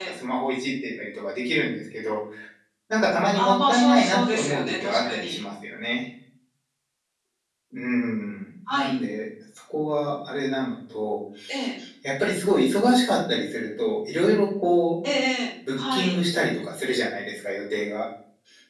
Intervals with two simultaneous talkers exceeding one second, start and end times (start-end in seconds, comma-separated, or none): 3.3-5.4